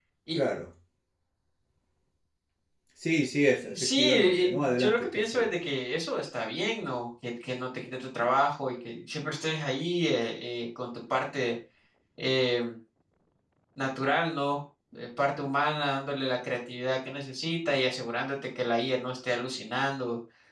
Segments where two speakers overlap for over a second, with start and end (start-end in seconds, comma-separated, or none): 3.8-5.5